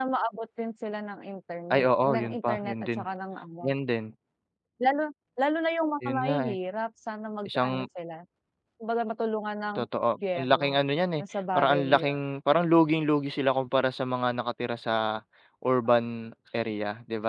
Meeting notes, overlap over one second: present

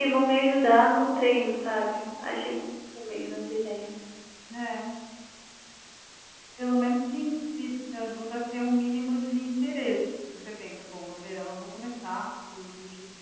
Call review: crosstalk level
none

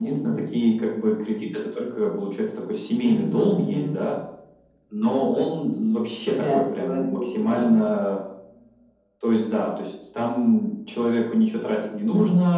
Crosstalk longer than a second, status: present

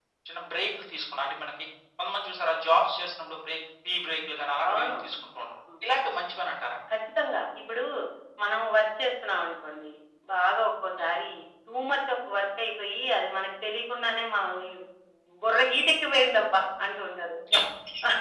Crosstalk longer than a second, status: none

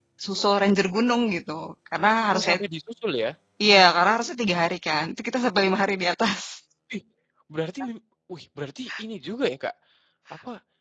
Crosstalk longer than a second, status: none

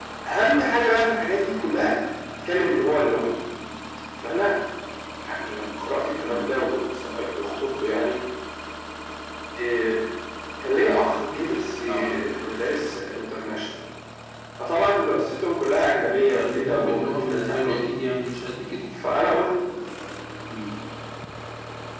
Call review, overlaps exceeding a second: present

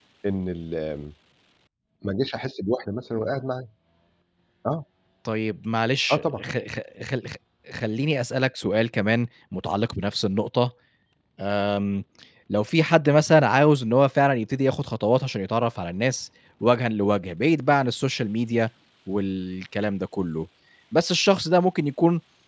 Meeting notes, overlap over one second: none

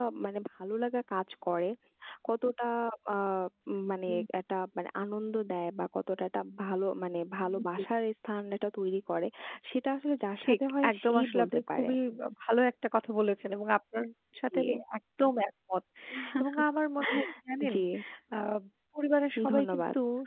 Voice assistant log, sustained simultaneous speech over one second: present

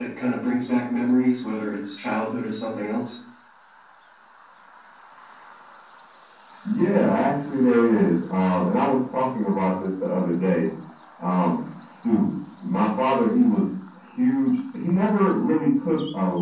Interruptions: none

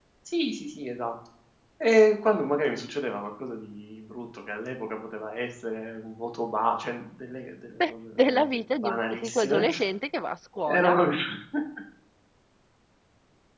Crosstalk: present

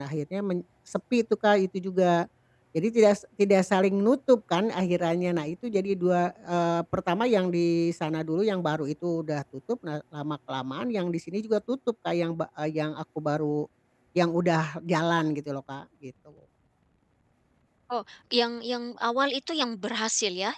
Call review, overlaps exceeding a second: none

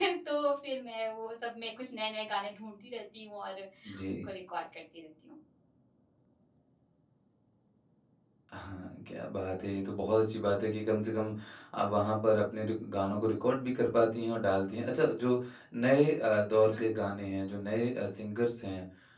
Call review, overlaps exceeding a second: none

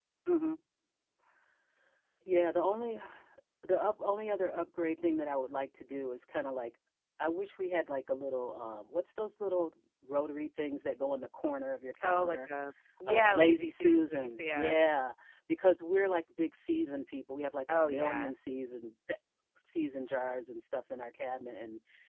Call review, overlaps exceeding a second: present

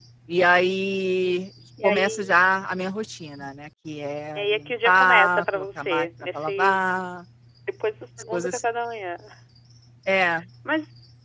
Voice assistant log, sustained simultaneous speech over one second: present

